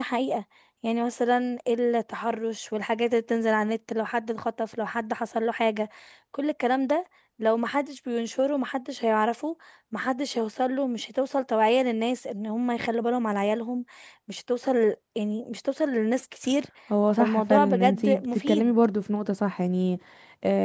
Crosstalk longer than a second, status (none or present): present